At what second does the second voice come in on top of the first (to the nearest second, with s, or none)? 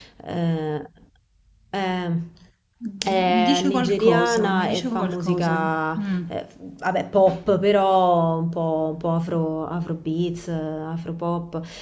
3 s